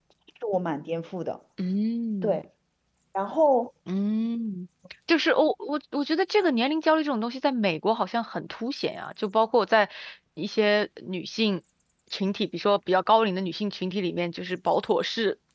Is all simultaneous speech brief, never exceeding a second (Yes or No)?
Yes